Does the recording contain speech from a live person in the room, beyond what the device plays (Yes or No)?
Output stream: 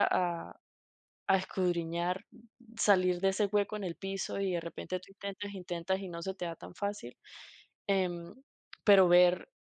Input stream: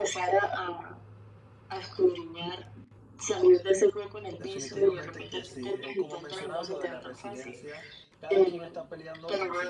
Yes